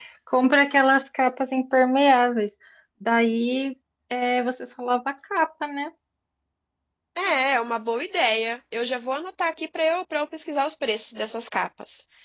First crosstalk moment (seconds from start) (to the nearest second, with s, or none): none